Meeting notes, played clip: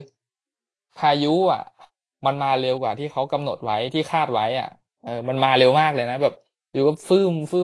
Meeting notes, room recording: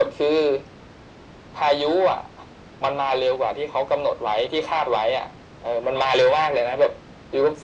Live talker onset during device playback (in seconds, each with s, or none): none